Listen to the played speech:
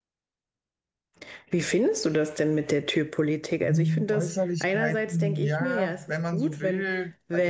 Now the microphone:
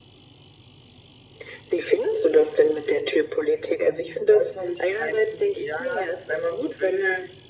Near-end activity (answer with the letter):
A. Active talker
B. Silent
B